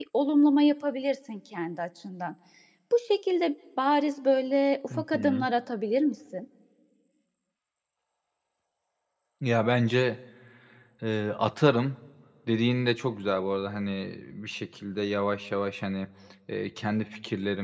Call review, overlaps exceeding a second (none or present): none